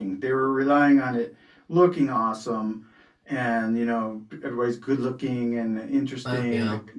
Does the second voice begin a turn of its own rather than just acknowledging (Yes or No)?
No